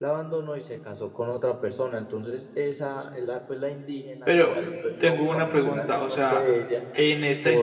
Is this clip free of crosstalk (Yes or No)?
No